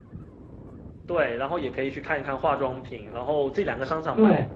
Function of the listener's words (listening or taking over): listening